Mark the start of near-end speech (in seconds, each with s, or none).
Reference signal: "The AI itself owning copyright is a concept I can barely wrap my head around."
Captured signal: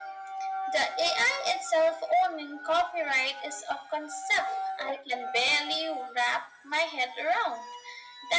none